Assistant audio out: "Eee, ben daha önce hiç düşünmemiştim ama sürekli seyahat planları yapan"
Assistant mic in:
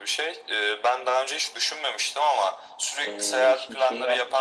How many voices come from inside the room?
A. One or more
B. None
A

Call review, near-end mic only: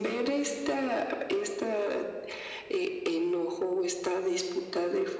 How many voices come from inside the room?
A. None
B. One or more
A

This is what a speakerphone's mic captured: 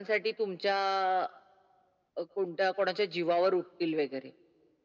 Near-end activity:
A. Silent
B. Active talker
A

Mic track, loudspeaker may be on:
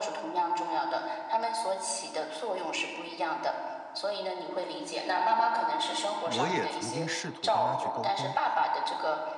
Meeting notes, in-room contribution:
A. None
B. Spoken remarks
B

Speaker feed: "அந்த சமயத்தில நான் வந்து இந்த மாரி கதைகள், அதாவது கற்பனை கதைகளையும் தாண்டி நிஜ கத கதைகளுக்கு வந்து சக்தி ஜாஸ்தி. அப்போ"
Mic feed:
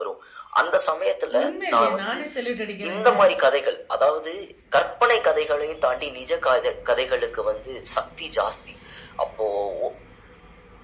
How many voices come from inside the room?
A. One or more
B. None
A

